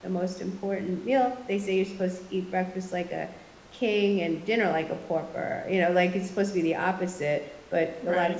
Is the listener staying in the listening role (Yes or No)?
Yes